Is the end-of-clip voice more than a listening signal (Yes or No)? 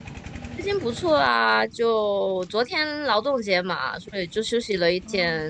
Yes